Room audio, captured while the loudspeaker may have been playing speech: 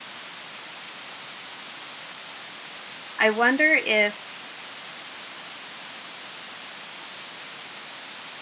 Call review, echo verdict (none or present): none